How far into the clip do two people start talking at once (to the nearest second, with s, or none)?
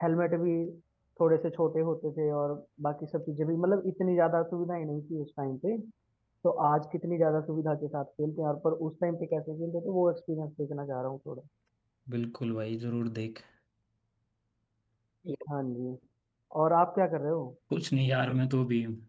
none